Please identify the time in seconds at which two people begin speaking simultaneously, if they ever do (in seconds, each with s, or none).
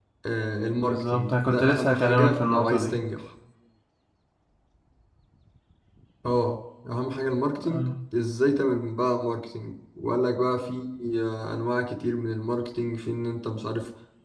0.8 s